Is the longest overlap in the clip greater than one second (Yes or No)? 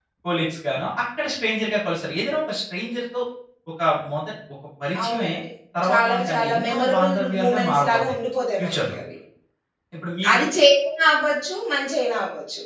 Yes